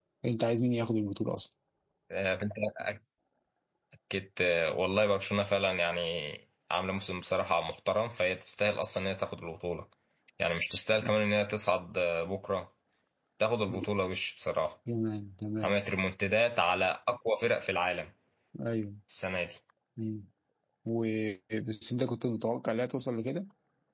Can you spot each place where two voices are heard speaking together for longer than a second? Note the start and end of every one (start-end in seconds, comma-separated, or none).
none